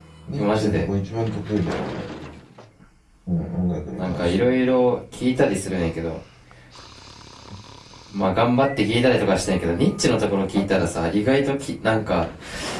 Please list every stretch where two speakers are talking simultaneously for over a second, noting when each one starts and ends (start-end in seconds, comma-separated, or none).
none